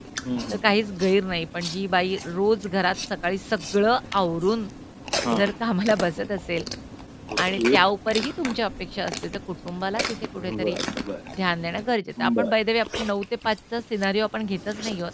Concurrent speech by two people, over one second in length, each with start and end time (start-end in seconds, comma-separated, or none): none